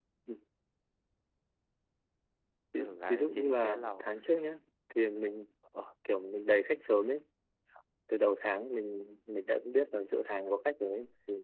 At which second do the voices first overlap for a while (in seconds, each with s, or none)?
2.8 s